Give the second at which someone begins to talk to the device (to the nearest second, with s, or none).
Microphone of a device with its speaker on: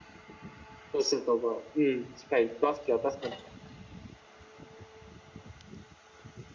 1 s